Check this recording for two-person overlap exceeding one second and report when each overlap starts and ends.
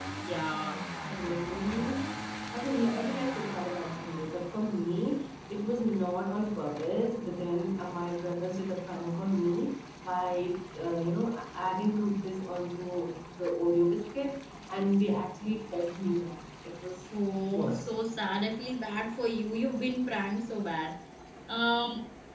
none

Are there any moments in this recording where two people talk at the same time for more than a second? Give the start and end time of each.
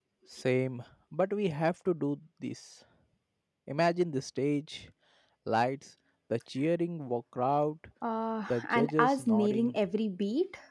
8.5-9.8

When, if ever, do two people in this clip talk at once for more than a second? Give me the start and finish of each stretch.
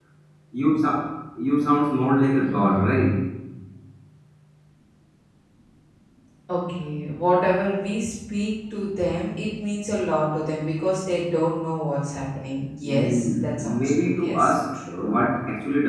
12.8-14.5

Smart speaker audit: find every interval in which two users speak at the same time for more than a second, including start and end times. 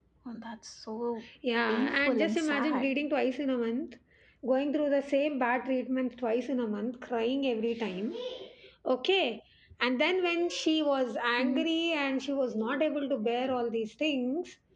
1.7-2.9

